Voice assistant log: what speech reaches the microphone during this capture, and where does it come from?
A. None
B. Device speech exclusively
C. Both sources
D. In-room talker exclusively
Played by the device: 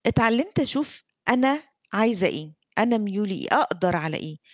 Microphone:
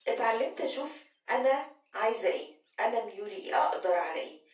B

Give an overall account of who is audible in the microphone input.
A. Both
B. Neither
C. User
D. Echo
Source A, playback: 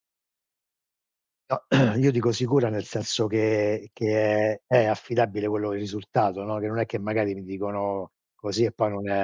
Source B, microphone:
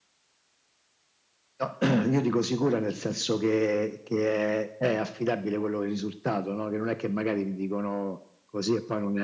D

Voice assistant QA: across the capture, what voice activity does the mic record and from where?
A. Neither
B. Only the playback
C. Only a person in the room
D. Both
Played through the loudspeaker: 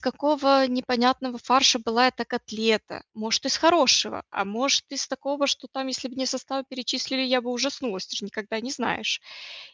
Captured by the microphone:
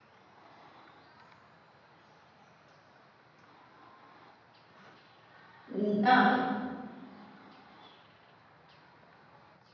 C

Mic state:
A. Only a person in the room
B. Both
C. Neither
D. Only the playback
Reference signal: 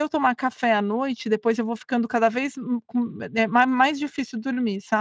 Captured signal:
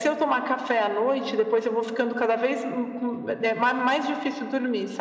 D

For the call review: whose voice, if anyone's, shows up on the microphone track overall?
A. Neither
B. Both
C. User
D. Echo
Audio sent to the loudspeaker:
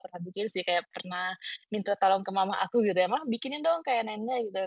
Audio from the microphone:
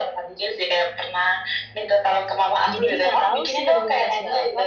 B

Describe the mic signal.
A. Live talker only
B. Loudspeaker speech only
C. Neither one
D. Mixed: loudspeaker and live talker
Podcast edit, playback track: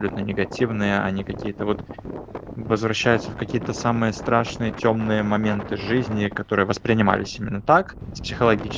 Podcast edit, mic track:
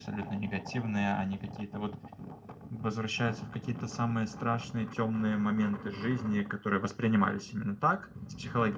B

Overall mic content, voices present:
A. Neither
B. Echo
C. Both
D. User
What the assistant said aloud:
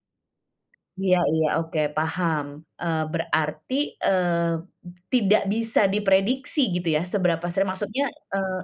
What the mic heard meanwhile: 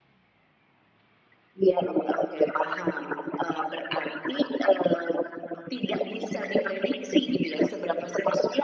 B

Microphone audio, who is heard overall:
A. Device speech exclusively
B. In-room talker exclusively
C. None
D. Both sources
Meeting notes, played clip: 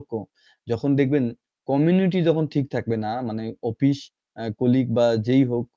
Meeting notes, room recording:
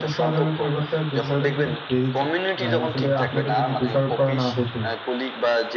D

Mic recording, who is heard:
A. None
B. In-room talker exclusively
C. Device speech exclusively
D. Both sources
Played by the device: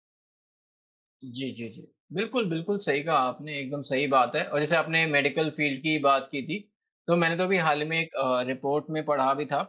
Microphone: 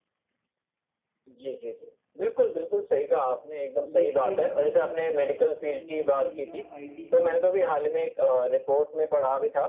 D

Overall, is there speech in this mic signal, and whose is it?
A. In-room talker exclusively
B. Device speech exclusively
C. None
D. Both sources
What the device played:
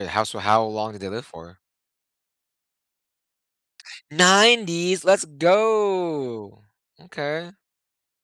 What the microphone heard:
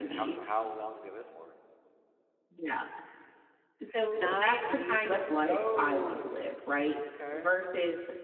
D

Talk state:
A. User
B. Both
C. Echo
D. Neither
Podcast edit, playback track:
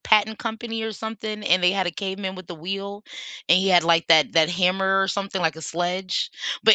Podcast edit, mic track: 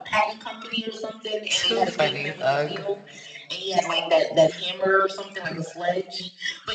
B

